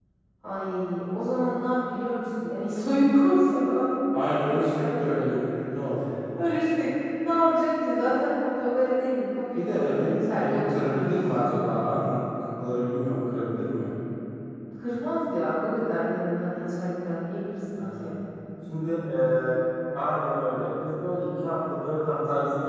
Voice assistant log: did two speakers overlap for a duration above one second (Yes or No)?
Yes